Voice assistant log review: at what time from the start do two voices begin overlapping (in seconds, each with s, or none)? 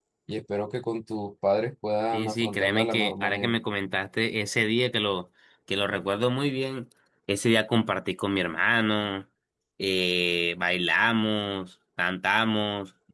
2.1 s